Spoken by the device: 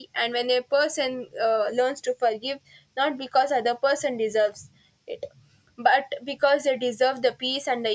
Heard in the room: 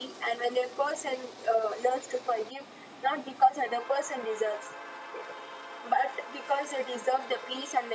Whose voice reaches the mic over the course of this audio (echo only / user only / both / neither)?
echo only